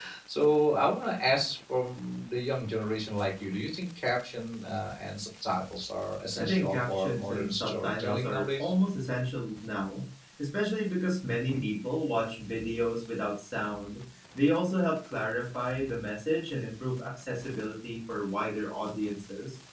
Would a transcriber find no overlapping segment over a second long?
No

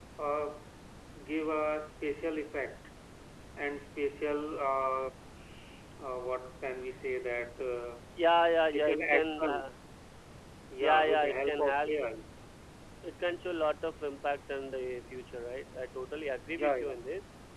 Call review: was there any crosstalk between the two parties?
Yes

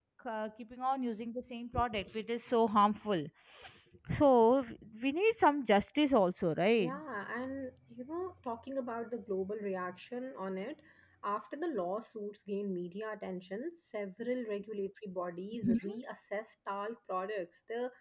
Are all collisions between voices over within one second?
Yes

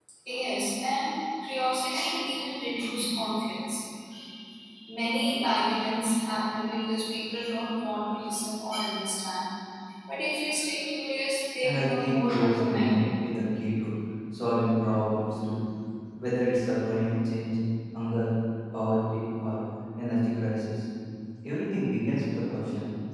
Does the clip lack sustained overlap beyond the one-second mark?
No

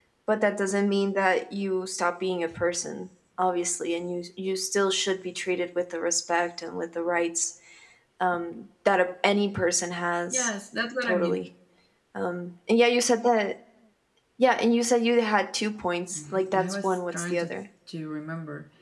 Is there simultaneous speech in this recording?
Yes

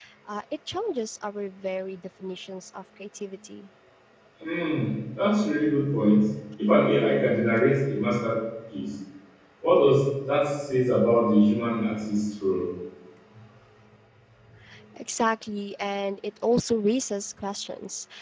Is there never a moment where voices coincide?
Yes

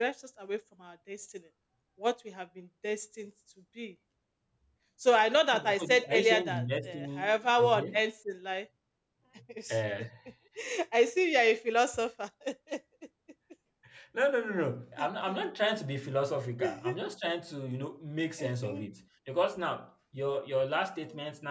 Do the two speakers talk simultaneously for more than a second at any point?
Yes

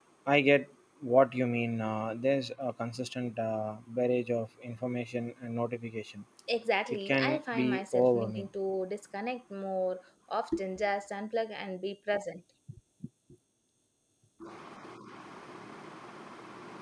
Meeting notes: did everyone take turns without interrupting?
No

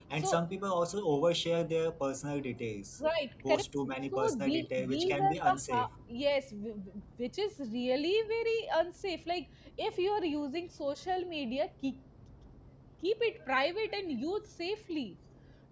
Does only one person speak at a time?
No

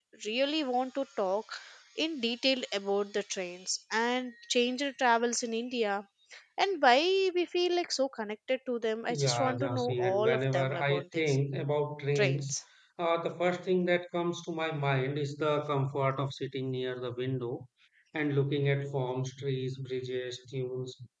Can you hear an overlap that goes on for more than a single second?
Yes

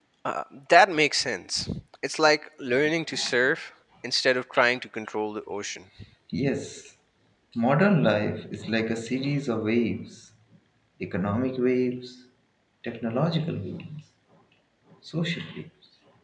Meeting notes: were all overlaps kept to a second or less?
Yes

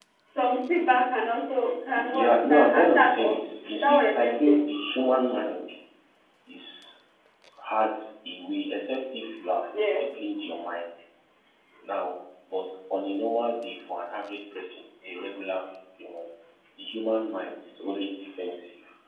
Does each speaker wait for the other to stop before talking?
No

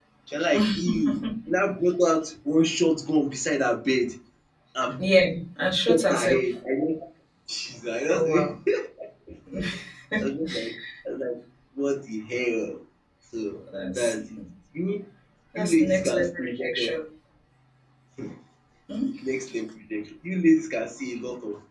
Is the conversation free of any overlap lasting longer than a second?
No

